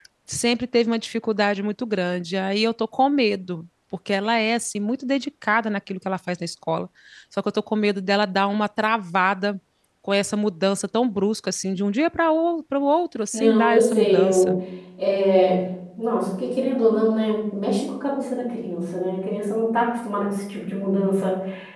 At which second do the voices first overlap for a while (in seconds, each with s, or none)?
13.3 s